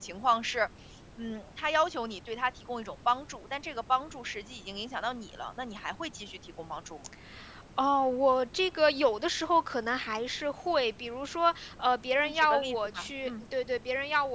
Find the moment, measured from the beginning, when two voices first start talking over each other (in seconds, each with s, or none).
12.2 s